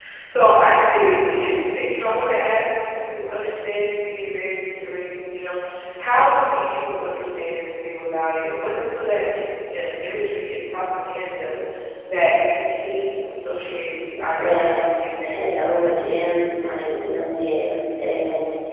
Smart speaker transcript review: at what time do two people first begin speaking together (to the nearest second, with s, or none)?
14 s